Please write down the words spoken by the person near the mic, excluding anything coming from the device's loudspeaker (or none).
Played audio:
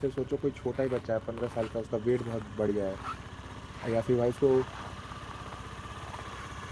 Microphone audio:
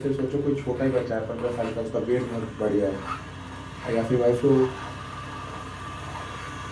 none